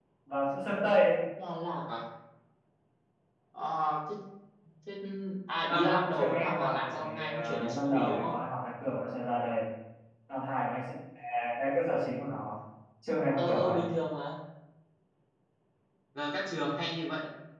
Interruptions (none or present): present